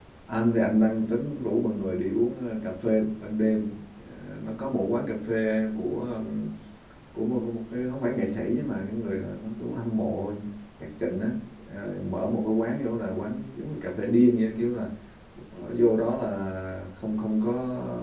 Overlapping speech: No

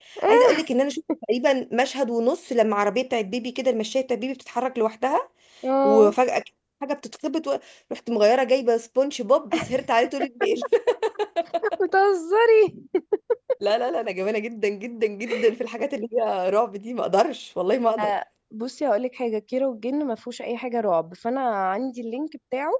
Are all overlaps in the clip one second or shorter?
Yes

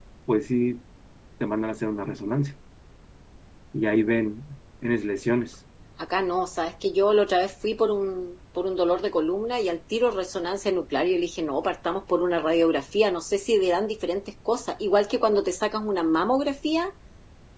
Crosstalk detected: No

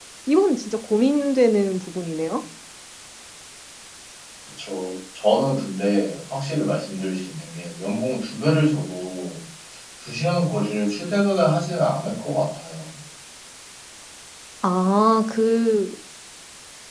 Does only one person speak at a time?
Yes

